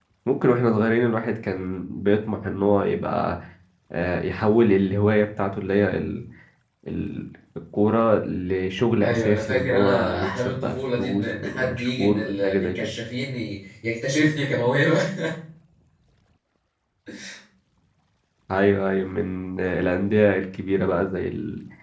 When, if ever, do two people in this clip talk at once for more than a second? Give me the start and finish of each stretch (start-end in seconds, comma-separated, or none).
9.0-12.8